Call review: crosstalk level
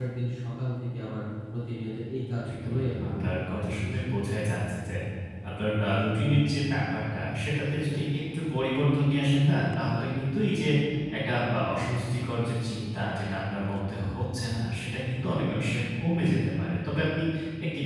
present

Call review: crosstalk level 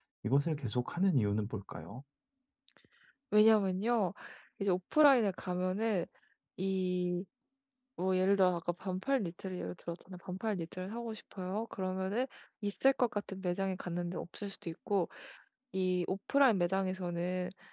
none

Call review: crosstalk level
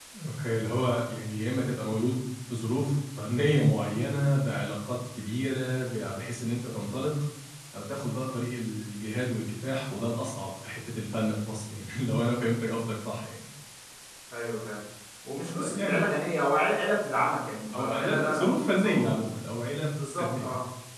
present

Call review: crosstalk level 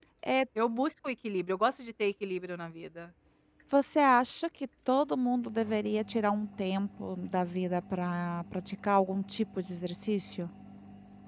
none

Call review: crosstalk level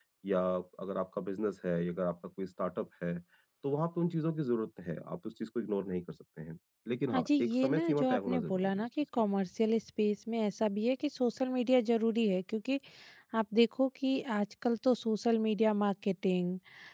present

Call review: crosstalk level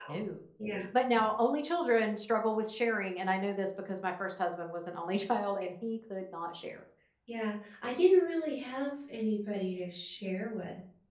none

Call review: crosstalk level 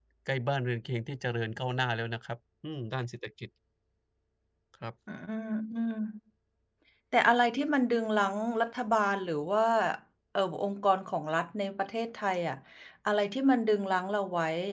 none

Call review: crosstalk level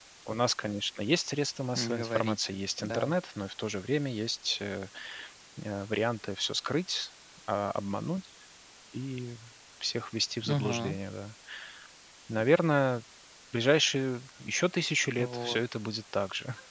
present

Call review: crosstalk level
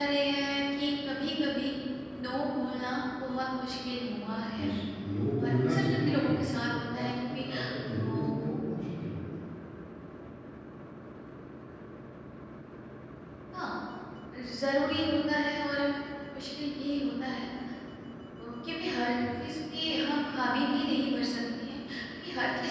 present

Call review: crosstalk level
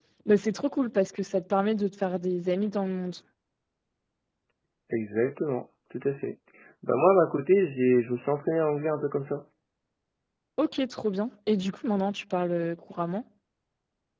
none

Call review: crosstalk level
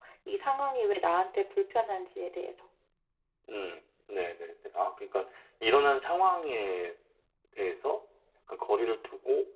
none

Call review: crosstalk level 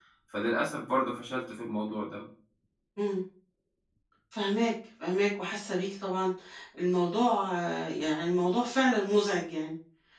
none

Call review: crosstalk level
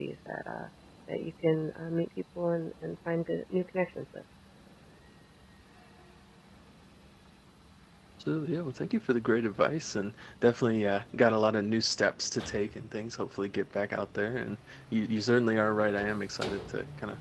none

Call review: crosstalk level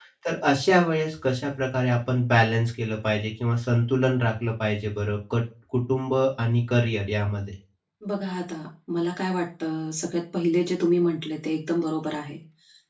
none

